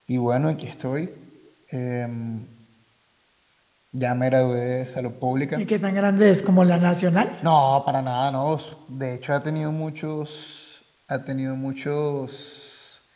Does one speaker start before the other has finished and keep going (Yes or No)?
No